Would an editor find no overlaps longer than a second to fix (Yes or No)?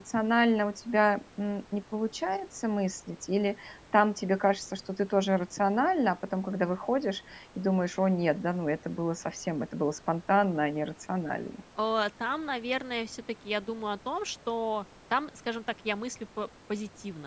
Yes